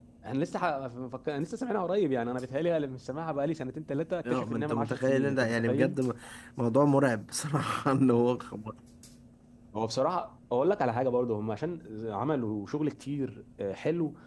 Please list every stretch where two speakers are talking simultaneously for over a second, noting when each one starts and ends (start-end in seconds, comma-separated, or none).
4.3-6.0